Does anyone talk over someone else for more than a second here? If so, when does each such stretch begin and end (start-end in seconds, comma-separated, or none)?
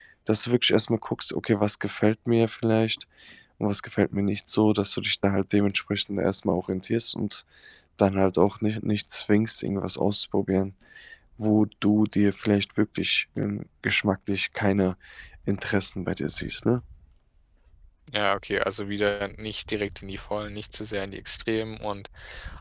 none